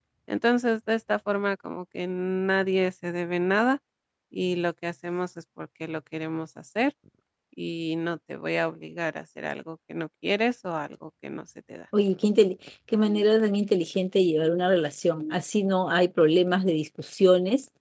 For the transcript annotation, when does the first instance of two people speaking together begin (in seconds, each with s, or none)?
none